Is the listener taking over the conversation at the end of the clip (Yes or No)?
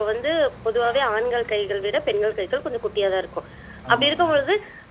No